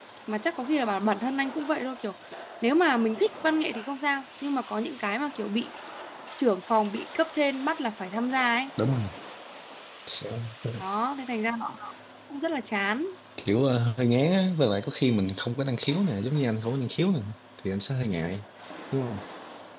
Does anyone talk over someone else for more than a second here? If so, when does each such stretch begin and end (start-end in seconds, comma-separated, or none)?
none